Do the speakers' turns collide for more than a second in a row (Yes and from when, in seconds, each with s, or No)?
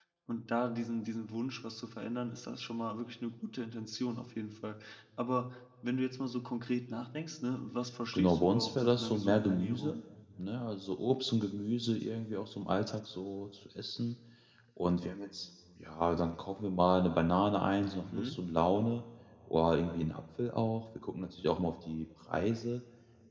Yes, from 8.1 s